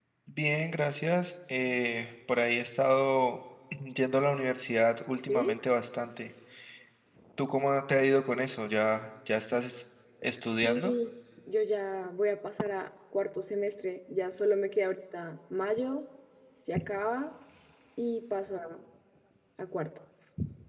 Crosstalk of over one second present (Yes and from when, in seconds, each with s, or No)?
No